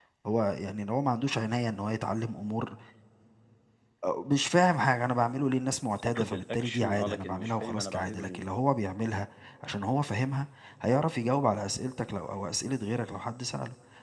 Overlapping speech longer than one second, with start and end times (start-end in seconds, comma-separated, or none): 6.1-8.4